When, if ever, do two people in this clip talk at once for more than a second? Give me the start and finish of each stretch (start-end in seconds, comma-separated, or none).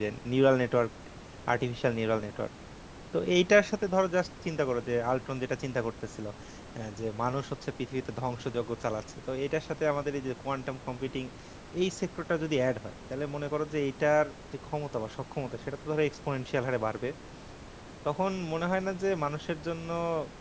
none